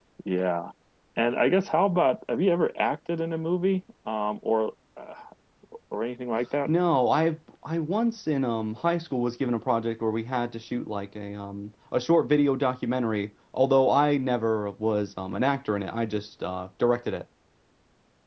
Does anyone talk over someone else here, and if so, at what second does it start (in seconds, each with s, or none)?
none